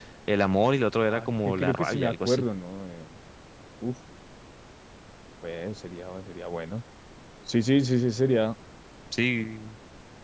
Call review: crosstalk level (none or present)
present